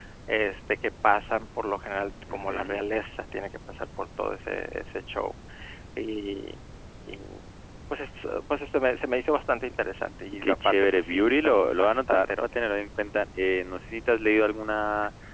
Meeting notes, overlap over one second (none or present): present